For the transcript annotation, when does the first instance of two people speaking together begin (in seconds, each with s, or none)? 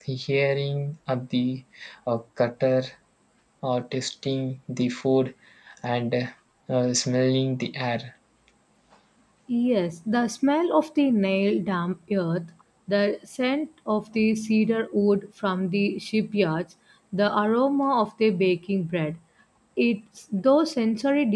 none